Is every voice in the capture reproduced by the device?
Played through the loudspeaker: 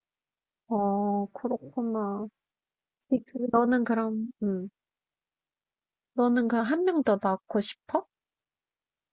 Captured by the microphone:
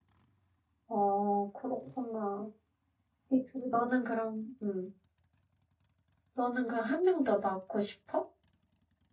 Yes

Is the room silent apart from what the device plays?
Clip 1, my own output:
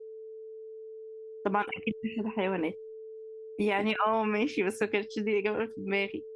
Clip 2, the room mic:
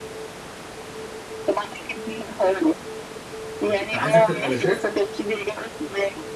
No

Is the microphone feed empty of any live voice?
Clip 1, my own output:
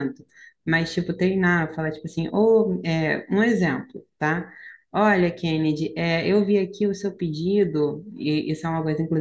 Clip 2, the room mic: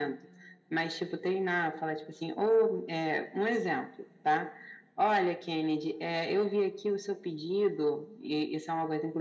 Yes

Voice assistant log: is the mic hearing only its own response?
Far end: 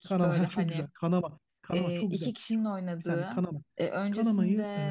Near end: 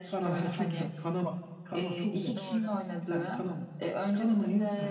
No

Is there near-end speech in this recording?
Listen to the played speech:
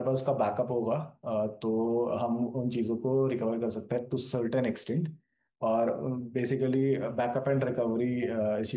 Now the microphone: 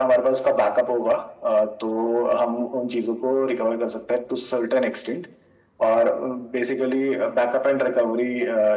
No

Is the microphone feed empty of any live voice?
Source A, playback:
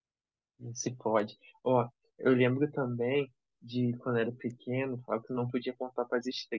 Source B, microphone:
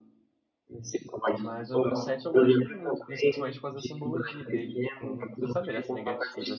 No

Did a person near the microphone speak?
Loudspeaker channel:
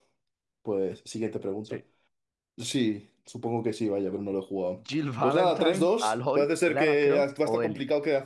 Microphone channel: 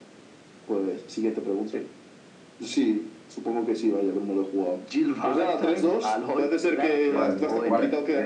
Yes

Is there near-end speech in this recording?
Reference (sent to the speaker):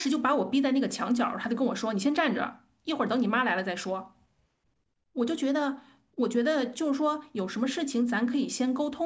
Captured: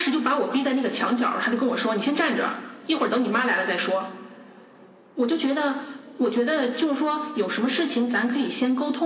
No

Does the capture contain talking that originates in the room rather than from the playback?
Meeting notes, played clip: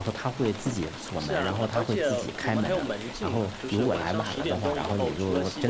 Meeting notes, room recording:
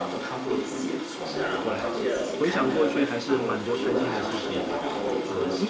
Yes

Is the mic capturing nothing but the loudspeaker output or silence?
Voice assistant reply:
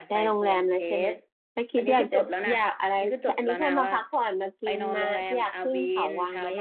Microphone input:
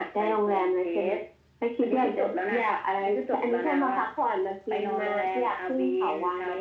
Yes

